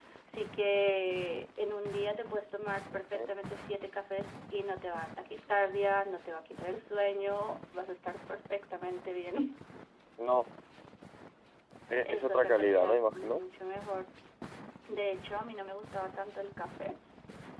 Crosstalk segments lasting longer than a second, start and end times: 12.1-13.4

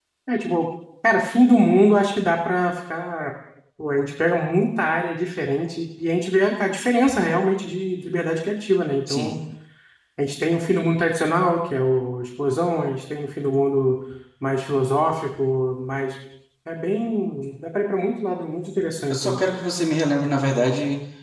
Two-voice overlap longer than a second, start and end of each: none

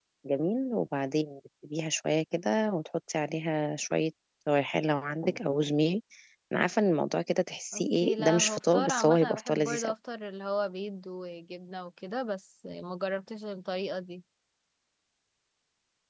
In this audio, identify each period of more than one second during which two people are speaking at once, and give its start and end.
7.7-9.9

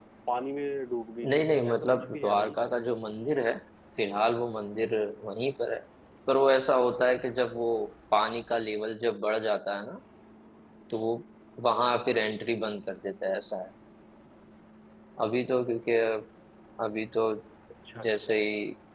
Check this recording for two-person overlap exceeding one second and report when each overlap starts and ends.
1.3-2.6

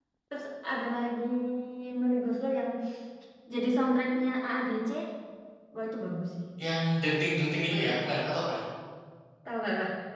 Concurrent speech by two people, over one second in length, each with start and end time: none

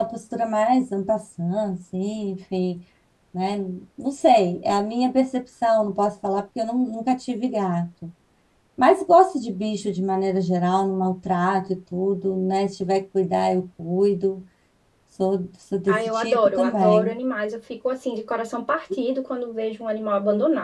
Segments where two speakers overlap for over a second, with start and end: 15.9-17.1

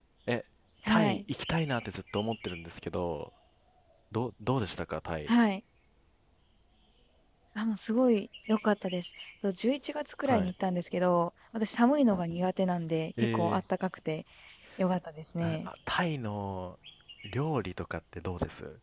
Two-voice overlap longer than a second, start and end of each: none

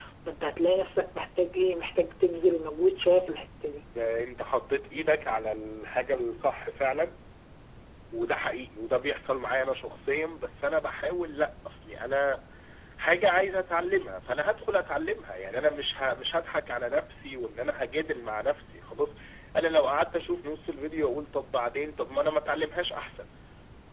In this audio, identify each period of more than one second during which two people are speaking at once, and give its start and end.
none

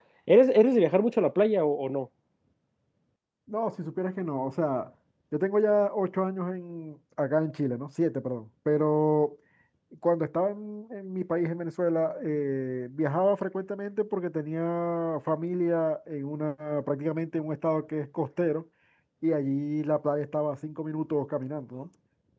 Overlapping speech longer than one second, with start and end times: none

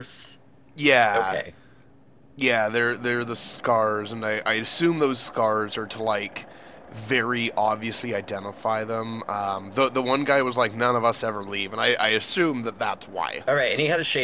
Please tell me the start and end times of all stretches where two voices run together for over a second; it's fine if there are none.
none

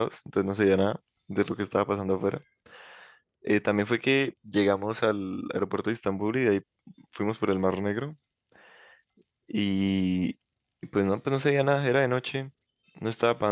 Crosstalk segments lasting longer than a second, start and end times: none

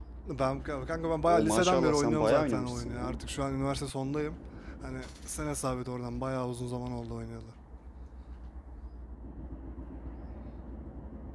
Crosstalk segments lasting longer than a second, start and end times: 1.3-3.1

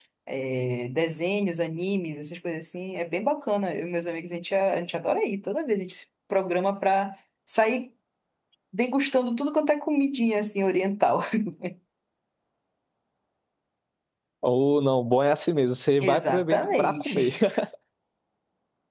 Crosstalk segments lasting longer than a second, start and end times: 16.0-17.3

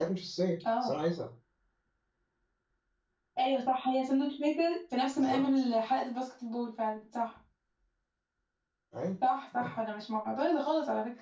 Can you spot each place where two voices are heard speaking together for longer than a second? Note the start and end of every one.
none

